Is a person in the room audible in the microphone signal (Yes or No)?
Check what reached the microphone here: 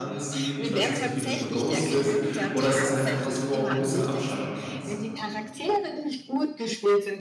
Yes